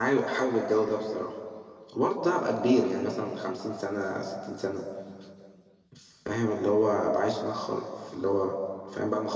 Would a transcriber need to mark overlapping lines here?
No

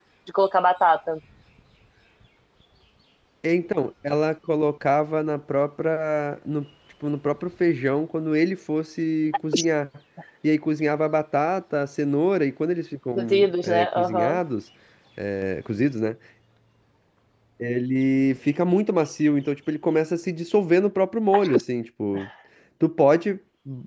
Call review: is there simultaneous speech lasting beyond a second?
Yes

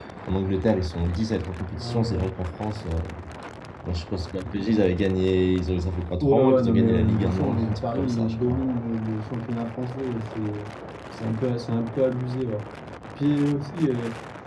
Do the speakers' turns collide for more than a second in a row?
Yes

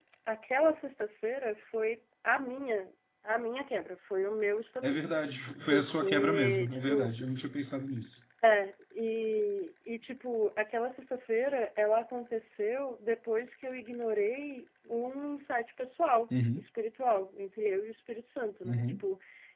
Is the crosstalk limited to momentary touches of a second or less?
No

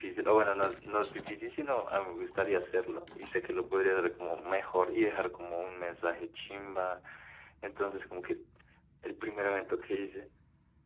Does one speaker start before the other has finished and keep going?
No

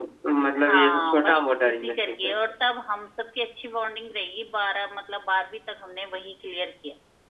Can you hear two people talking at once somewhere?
Yes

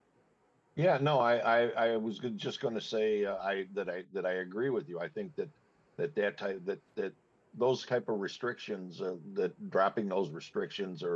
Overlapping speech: No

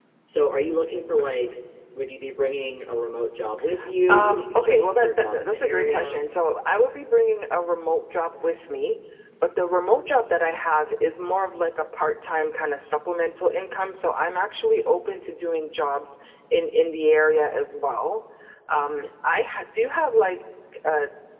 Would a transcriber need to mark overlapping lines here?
Yes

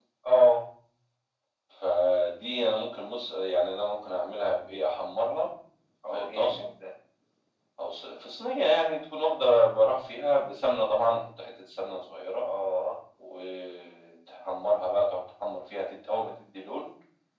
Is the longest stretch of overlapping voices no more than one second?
Yes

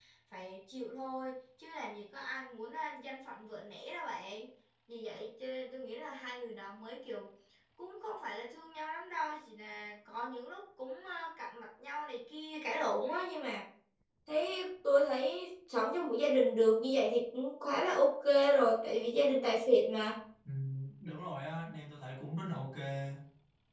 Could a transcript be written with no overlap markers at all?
Yes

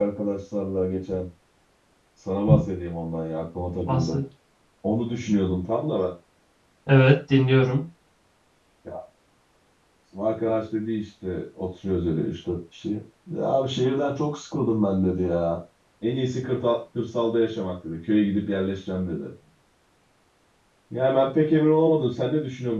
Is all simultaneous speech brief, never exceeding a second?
Yes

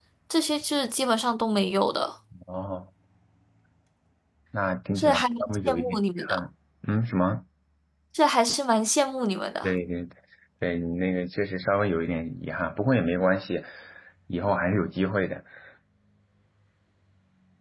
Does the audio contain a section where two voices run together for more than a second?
Yes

